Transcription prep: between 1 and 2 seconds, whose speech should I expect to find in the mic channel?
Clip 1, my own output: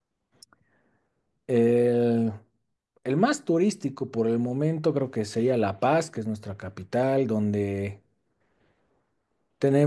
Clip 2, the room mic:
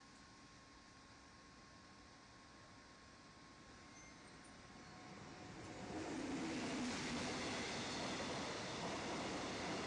neither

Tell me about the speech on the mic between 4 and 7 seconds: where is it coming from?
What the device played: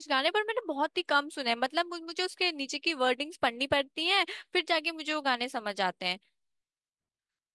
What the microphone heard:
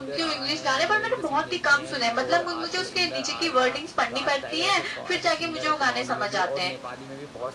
both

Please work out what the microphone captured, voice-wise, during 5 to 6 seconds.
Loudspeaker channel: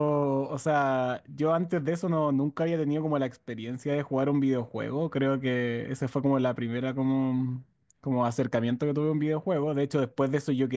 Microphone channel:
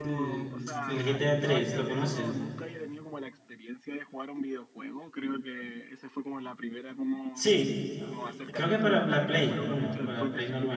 echo only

